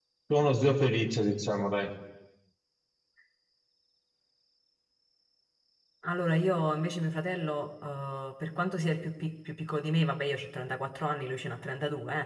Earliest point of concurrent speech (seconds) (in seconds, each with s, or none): none